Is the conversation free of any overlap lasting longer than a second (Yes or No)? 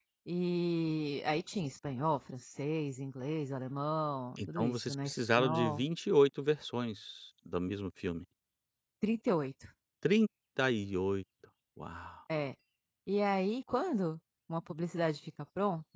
No